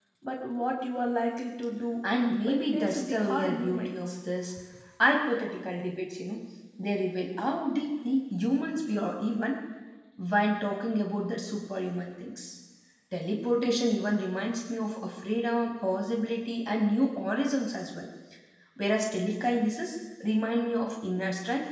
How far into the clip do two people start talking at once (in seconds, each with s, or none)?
2.5 s